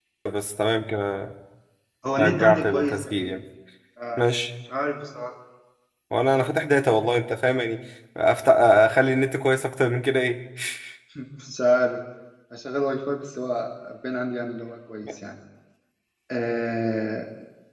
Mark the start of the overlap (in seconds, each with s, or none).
2.2 s